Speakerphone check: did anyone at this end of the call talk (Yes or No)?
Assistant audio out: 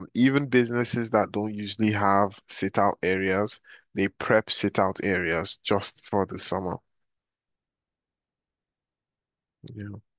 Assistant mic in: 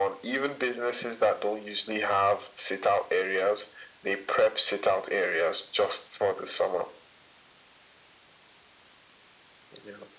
No